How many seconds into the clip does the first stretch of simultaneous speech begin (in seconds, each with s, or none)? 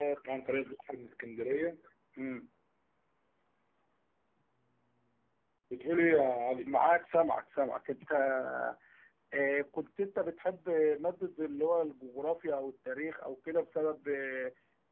none